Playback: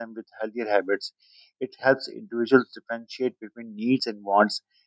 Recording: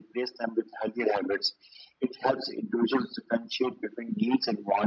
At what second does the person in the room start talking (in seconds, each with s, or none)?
none